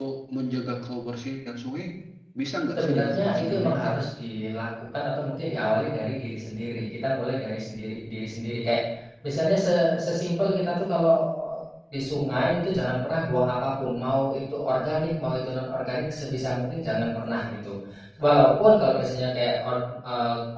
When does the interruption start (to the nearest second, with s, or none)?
3 s